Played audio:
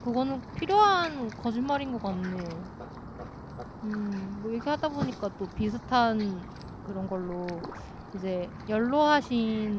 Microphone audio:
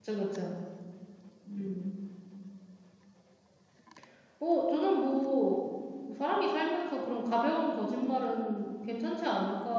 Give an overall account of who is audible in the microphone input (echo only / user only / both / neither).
user only